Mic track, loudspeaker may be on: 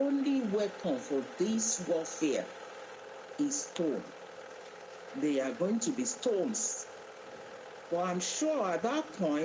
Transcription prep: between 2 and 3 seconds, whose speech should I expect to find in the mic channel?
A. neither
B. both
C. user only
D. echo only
D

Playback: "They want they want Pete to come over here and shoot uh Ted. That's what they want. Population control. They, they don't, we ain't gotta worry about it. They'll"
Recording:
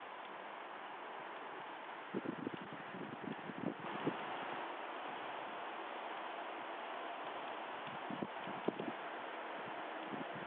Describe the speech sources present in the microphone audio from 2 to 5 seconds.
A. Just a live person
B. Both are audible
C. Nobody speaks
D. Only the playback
C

